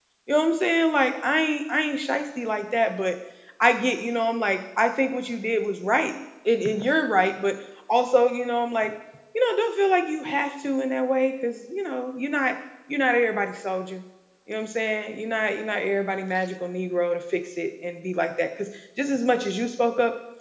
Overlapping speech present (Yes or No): No